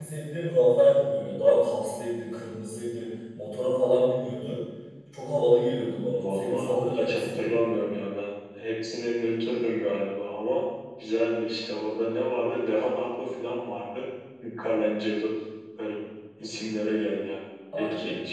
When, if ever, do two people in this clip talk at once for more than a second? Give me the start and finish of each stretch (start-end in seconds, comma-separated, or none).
6.2-7.5